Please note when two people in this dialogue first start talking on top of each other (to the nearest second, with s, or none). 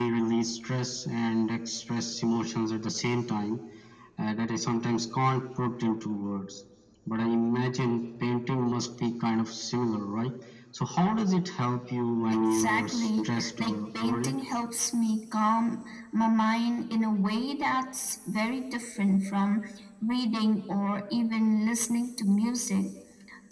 12 s